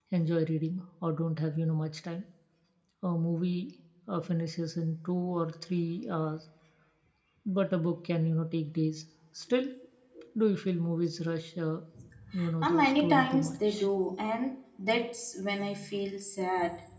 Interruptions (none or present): present